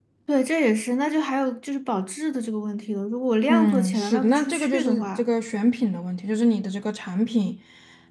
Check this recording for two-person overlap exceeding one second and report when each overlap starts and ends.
3.5-5.3

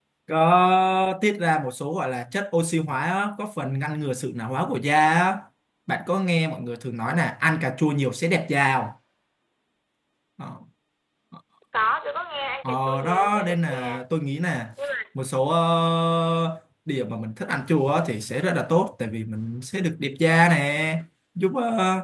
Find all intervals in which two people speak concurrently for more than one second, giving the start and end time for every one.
12.6-14.0

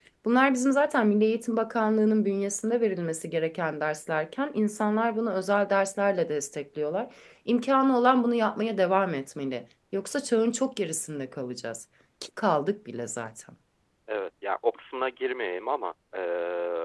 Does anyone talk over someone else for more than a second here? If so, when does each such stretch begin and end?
none

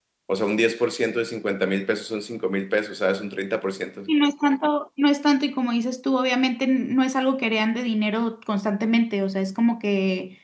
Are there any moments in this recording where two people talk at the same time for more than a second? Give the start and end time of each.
none

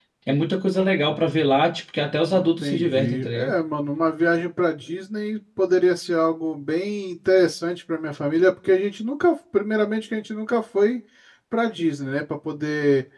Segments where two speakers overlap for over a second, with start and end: 2.3-3.6

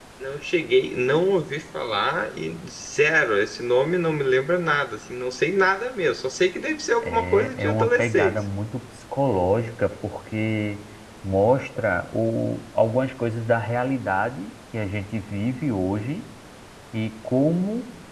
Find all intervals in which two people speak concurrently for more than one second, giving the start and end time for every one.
7.0-8.4

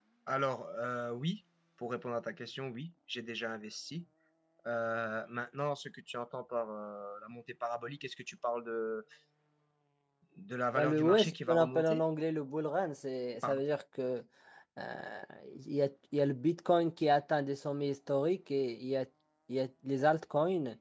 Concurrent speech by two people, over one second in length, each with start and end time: 10.8-12.0

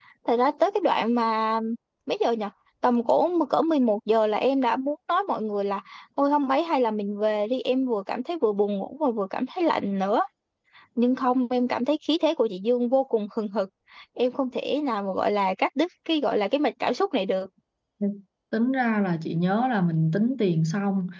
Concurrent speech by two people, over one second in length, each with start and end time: none

